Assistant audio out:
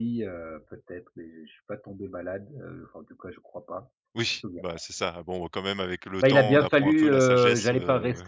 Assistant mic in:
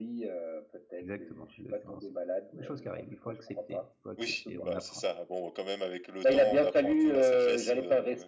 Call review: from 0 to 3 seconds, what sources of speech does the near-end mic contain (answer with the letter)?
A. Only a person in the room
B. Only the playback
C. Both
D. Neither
C